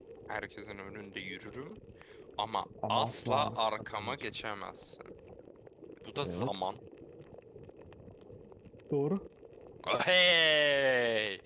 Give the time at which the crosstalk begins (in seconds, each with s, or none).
2.9 s